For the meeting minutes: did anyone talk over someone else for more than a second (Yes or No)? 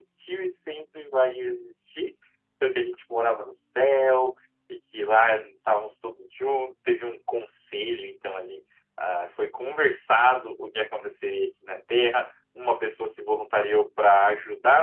No